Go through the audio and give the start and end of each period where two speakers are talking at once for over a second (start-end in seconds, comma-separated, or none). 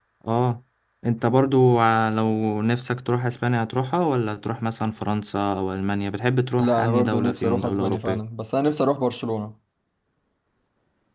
6.6-8.2